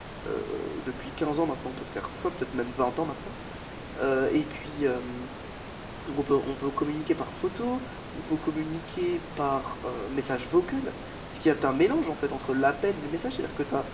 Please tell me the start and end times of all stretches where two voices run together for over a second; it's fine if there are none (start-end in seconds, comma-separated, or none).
none